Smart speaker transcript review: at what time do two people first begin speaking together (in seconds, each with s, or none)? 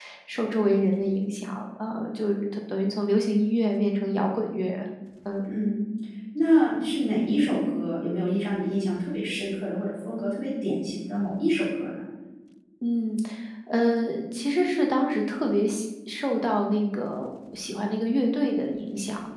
none